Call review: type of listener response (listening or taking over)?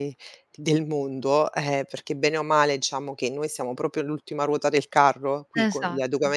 listening